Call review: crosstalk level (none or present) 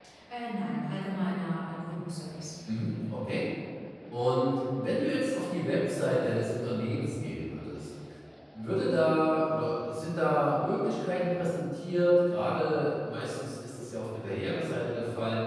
none